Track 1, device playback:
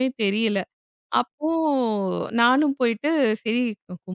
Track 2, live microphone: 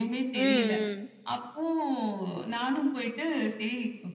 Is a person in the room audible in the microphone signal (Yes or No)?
Yes